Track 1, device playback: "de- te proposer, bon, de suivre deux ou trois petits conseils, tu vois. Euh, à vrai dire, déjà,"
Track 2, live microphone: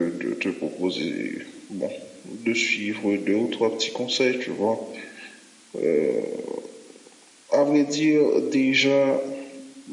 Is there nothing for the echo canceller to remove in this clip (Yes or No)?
No